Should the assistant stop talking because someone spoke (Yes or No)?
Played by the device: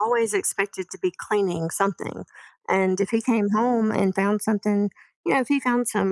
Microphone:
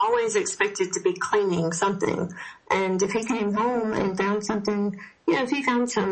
No